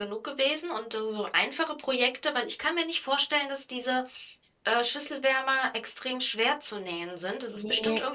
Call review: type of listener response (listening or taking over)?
listening